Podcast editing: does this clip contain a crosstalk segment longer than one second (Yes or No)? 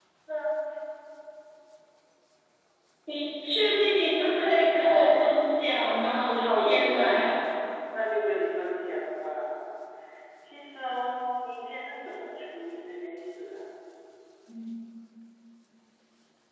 Yes